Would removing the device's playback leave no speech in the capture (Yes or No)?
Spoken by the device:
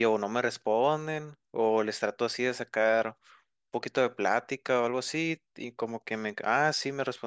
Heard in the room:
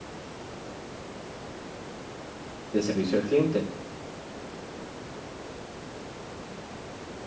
No